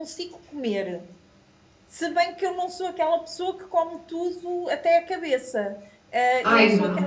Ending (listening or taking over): listening